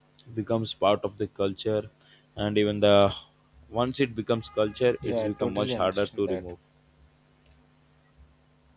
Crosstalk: present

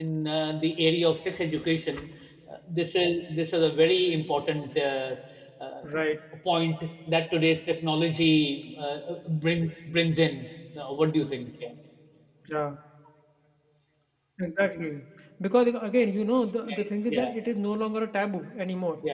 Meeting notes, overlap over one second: none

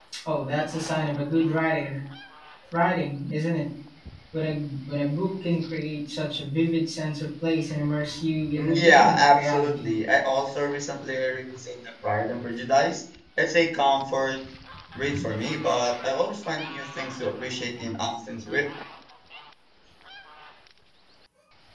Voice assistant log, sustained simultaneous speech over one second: present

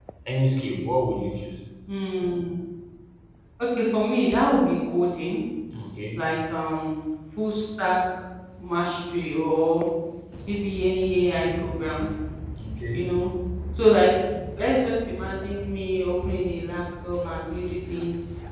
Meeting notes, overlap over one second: none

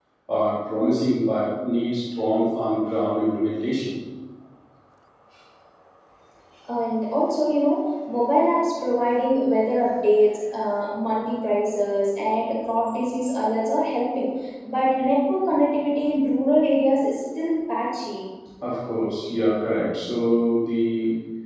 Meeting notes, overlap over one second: none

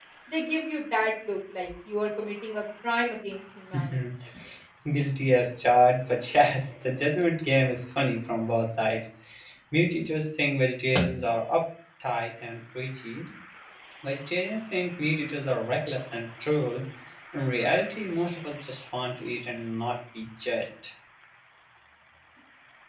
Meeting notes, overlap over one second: none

